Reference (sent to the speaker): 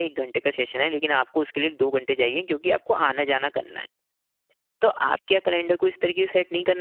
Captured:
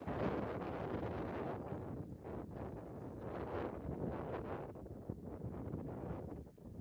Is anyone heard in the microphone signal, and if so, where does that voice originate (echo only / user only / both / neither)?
neither